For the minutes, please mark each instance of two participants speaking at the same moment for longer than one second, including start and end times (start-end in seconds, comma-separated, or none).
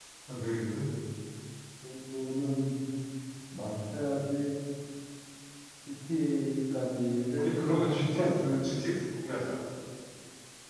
7.3-8.6